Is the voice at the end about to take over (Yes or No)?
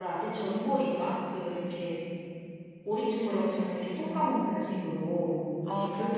No